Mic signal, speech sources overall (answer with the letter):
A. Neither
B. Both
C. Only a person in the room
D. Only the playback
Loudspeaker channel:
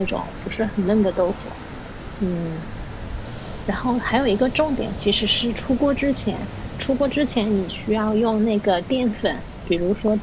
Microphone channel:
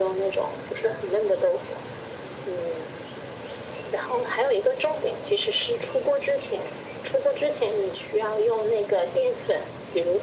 D